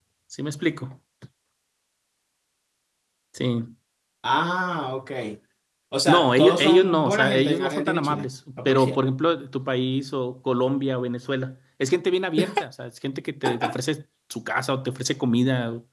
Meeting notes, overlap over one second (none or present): present